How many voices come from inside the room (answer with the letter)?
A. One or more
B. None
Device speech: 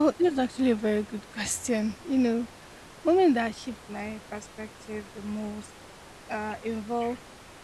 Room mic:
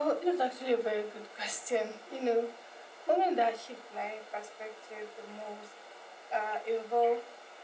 B